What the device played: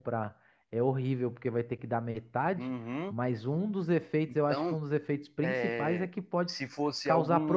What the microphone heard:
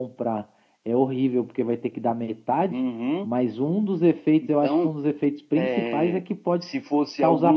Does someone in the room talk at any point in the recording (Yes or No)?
No